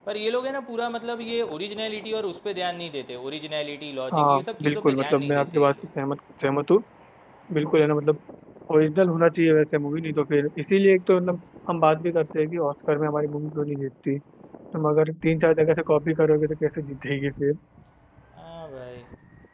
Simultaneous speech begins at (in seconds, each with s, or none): 4.1 s